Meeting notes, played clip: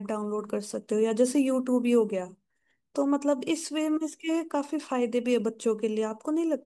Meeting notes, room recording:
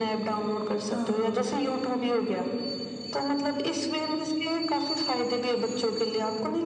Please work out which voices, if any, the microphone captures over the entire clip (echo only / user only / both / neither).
both